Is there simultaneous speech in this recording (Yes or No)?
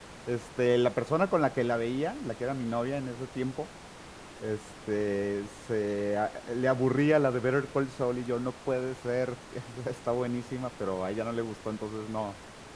No